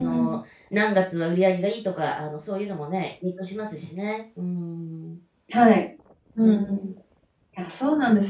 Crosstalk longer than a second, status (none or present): none